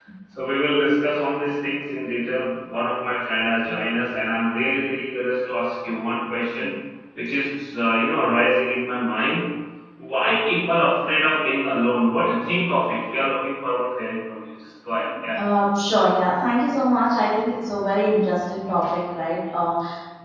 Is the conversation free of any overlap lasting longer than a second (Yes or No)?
Yes